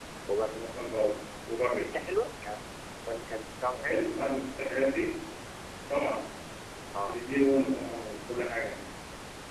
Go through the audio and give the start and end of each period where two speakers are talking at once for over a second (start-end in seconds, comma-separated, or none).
none